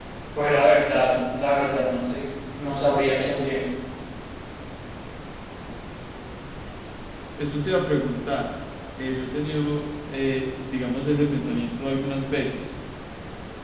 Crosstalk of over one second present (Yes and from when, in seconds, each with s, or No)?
No